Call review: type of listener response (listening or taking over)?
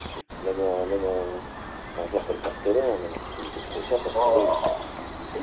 listening